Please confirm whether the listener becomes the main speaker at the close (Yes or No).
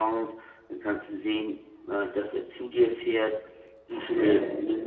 No